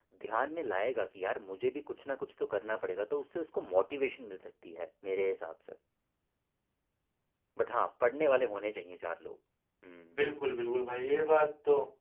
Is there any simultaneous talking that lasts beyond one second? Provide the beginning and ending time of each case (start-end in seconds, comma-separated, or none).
none